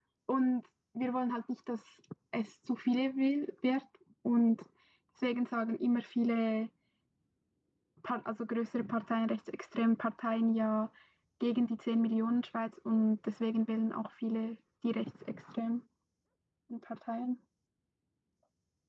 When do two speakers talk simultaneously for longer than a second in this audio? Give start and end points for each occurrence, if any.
none

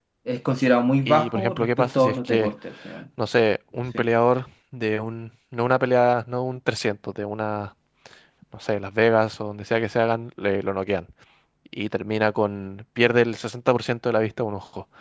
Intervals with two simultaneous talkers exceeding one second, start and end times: 1.1-2.5

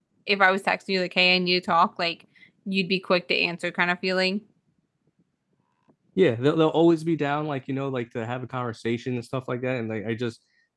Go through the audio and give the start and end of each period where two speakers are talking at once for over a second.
none

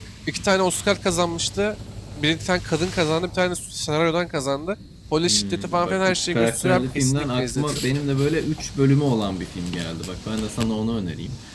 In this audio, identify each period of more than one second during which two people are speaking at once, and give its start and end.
5.2-7.9

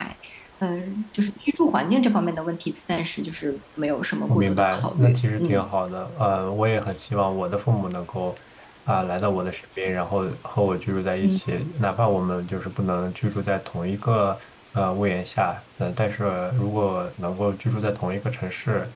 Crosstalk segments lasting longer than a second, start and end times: 4.3-5.7

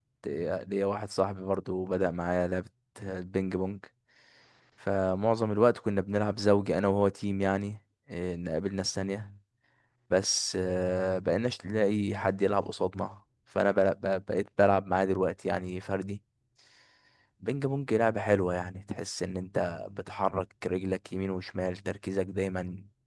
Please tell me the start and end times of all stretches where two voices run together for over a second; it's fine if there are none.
none

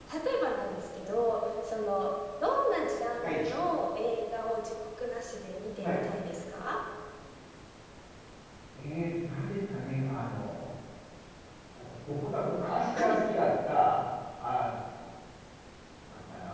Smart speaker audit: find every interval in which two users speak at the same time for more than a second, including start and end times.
none

